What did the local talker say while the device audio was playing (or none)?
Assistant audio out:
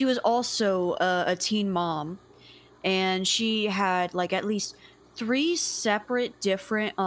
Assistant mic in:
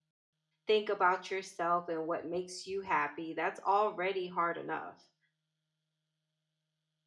think about yourself and what makes you happy. That's already hard enough.